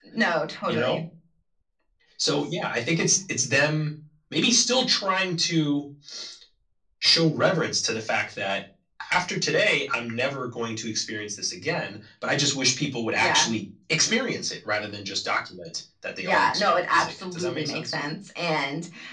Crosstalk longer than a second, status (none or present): present